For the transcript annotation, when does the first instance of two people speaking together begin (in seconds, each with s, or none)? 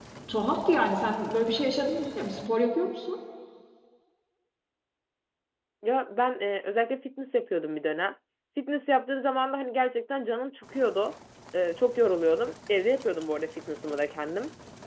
none